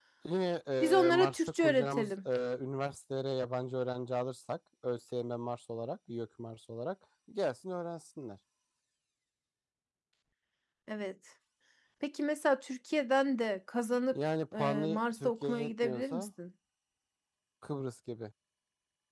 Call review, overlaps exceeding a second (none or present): present